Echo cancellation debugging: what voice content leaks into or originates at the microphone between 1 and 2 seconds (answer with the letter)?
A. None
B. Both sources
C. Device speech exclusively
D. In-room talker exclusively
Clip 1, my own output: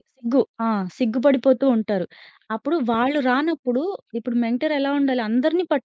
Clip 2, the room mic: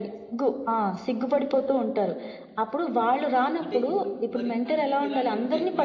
C